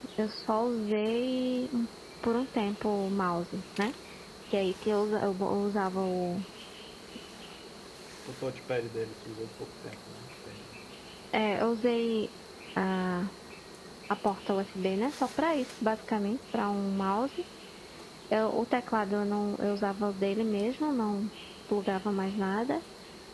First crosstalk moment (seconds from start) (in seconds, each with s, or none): none